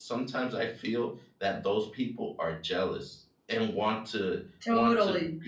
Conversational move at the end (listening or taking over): listening